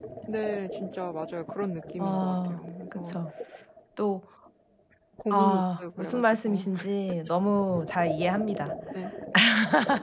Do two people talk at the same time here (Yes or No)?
Yes